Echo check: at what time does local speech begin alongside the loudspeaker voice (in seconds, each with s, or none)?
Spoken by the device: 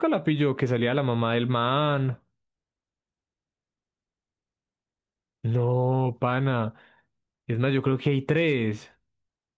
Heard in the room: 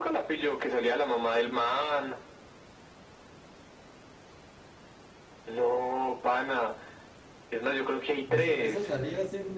8.3 s